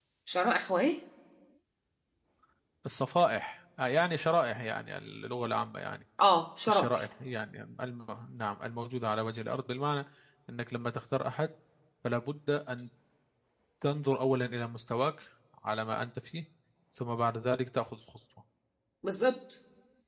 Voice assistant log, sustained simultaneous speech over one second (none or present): none